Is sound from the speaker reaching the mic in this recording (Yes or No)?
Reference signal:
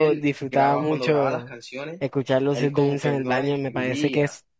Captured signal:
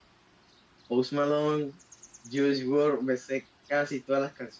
No